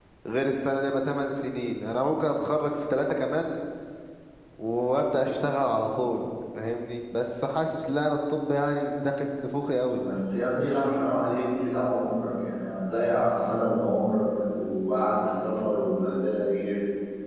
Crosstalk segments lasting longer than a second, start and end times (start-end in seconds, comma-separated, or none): none